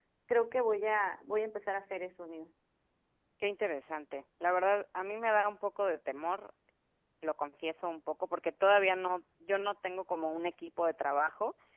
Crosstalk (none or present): none